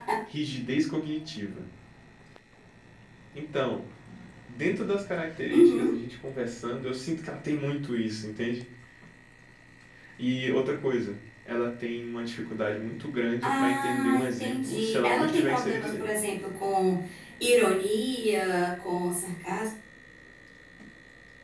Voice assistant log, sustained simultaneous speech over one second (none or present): present